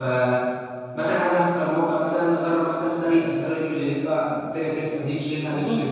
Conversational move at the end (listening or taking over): listening